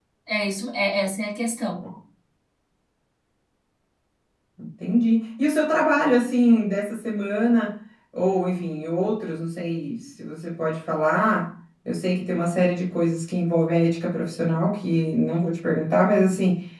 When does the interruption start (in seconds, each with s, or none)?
none